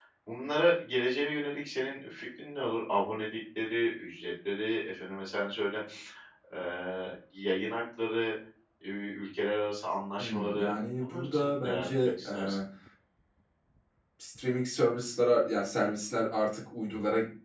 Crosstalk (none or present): present